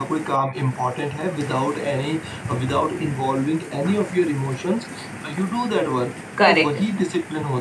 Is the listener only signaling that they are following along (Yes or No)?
Yes